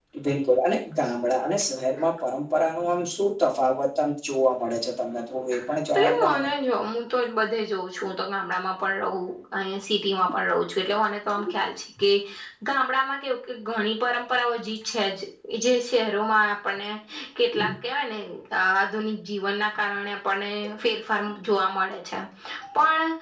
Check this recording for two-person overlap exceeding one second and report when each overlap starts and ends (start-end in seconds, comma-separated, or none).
none